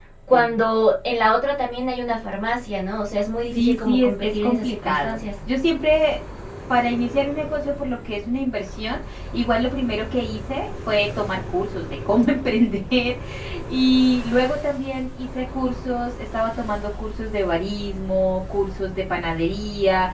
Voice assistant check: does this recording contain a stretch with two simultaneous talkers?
Yes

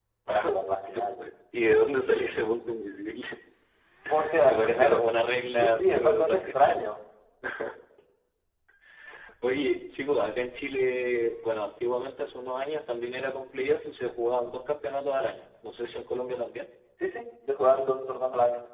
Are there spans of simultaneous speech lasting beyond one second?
Yes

